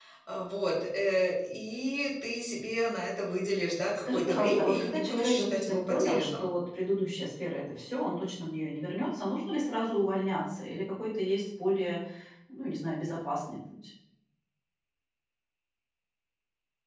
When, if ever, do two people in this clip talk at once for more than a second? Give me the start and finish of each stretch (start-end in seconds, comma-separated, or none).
4.0-6.4